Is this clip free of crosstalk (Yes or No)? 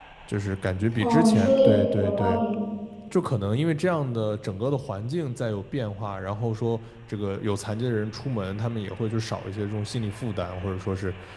No